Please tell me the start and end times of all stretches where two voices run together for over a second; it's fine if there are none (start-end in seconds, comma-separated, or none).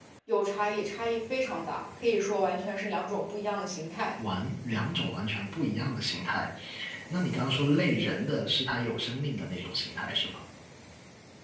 none